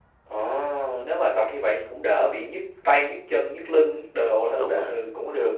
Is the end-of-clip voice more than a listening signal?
Yes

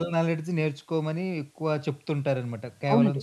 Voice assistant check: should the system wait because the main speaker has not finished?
No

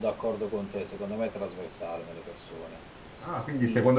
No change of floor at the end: No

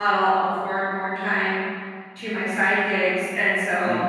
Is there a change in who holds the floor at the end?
No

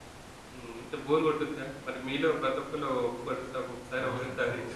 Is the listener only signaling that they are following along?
No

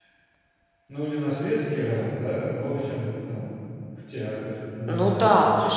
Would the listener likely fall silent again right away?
No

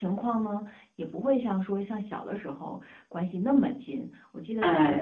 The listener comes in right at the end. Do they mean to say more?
No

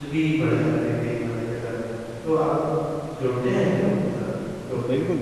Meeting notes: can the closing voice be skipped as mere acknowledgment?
No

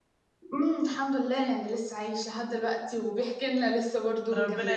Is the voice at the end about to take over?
Yes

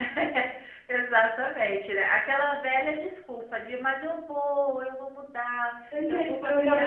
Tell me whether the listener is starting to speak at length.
Yes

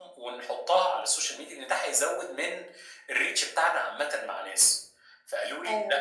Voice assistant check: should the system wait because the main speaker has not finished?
Yes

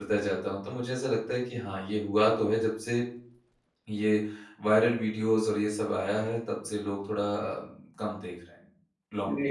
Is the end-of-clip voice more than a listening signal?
Yes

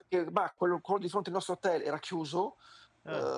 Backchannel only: Yes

